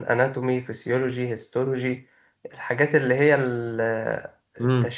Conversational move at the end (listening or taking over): listening